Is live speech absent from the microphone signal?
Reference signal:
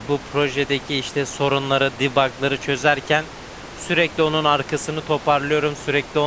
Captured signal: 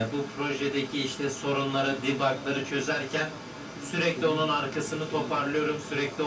No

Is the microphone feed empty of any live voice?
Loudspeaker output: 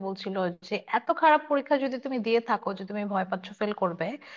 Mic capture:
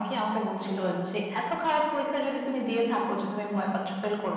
Yes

